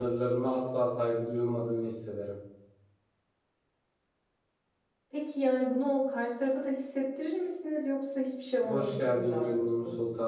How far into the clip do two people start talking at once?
8.6 s

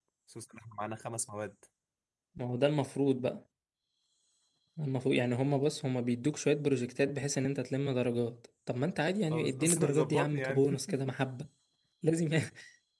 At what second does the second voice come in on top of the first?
9.3 s

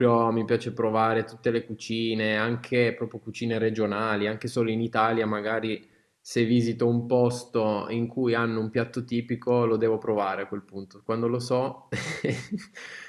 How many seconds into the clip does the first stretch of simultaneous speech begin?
none

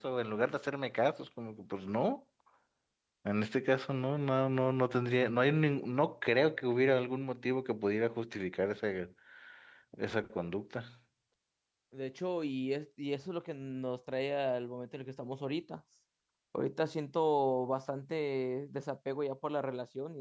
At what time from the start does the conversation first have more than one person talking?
none

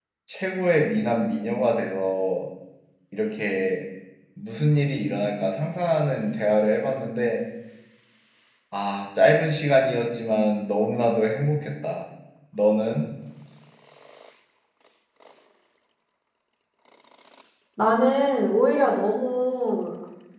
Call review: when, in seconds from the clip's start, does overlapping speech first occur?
none

